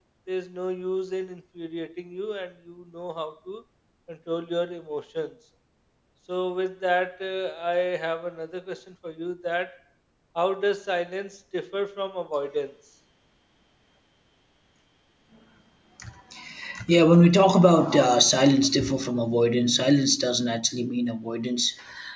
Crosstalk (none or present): none